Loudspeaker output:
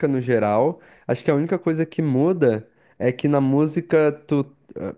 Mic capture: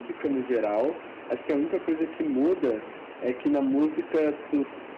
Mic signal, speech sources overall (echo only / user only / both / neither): echo only